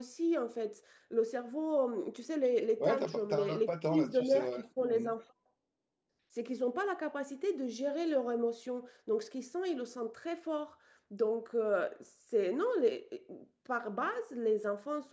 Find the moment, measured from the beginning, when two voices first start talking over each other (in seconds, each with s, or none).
2.8 s